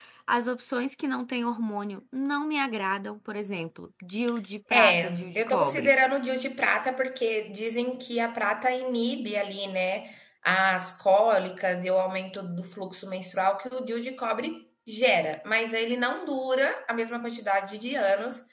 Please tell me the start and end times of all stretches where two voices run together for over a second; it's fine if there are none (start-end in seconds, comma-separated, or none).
4.7-5.9